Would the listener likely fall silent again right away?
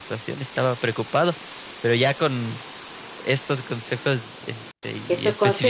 No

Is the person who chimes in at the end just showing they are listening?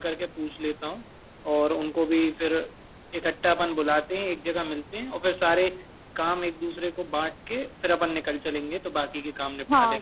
No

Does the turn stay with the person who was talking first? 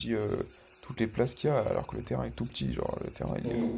No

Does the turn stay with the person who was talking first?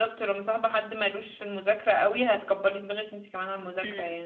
No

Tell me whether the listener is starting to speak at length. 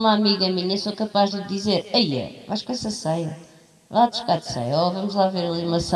No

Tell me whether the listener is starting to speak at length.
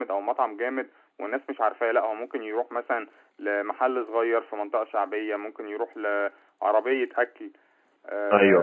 No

